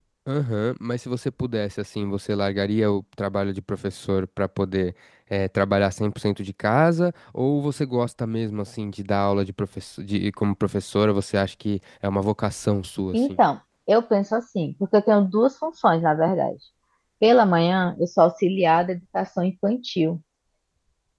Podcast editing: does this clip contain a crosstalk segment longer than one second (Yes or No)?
No